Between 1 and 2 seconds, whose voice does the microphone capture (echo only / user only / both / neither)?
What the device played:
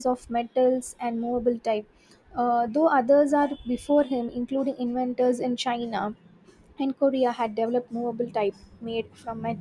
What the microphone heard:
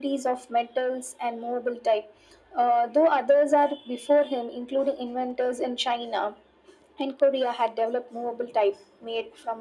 echo only